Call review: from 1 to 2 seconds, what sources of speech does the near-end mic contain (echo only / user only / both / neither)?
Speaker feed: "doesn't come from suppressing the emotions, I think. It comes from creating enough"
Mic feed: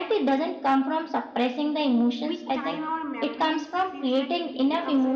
echo only